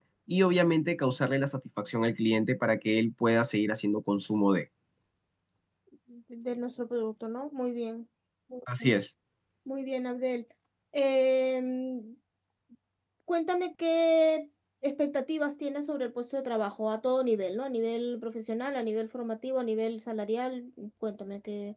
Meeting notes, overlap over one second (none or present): none